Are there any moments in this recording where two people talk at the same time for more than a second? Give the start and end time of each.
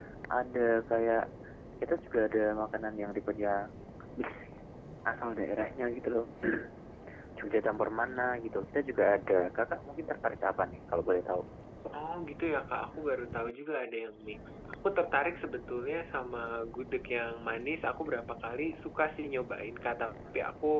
none

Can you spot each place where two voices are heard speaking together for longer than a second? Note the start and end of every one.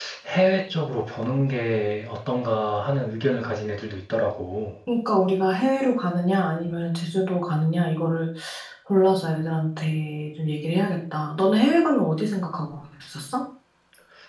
none

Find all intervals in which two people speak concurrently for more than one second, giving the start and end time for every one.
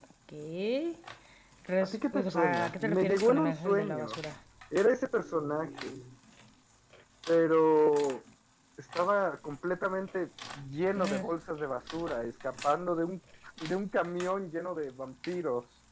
1.8-4.2

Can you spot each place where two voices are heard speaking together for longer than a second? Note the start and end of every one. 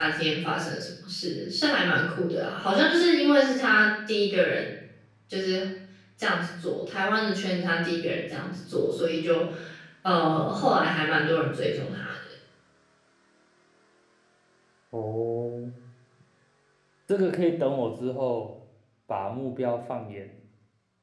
none

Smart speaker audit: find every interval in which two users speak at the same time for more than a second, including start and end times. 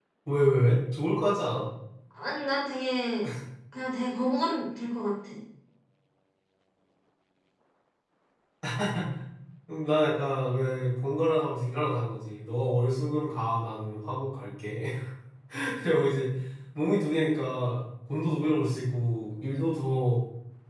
none

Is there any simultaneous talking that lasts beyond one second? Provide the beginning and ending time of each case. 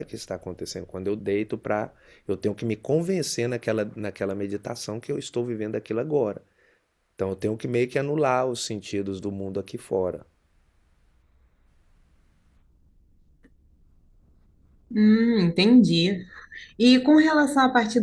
none

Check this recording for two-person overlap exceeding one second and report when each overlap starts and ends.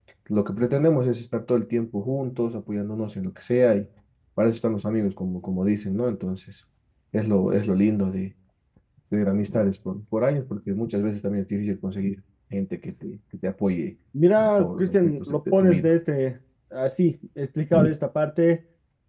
14.4-15.9

